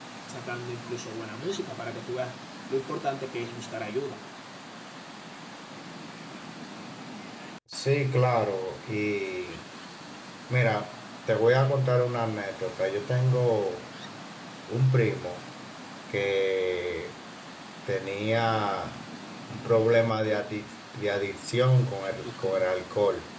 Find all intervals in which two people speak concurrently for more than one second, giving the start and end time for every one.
none

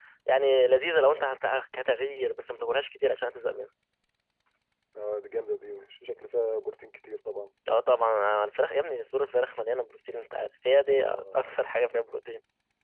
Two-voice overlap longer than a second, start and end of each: none

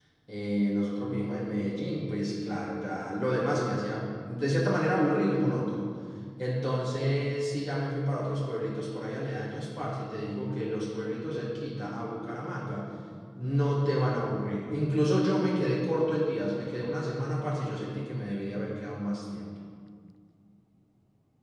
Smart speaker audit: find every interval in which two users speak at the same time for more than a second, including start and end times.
none

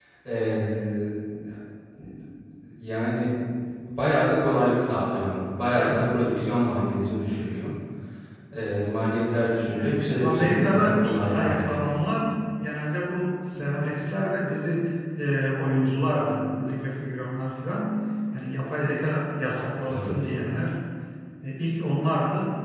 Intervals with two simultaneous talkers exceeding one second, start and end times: 9.7-12.0

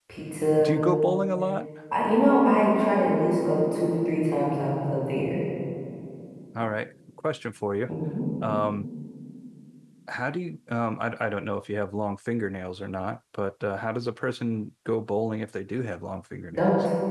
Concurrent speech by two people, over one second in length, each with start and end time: none

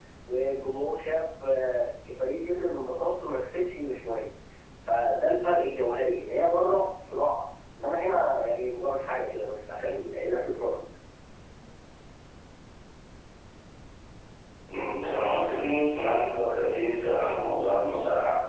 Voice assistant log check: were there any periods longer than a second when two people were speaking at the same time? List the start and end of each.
none

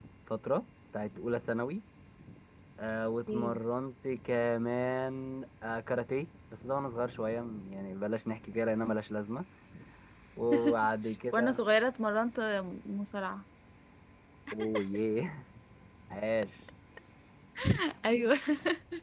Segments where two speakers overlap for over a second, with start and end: none

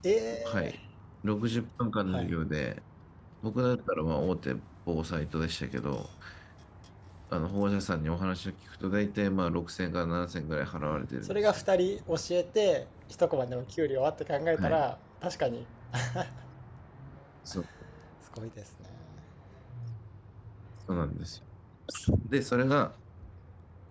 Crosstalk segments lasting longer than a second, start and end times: none

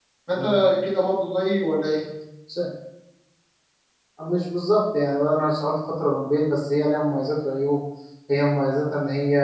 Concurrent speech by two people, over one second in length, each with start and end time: none

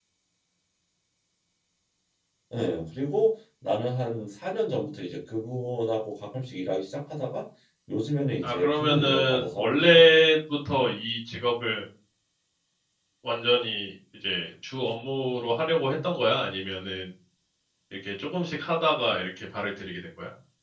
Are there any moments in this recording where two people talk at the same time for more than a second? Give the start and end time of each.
8.4-10.0

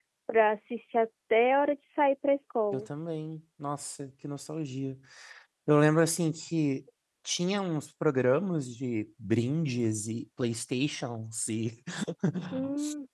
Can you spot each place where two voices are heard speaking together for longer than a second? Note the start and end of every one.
none

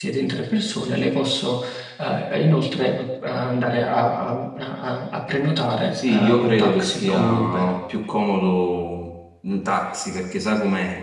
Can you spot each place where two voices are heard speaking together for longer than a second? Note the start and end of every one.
5.9-7.7

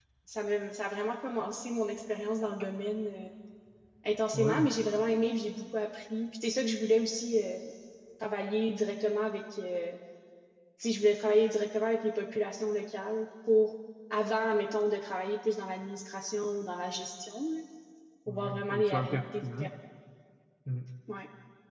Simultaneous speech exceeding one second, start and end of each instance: 18.3-19.6

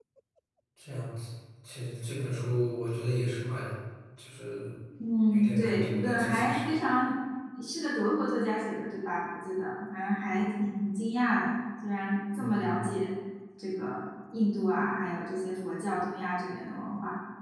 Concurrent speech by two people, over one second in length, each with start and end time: 5.3-6.7

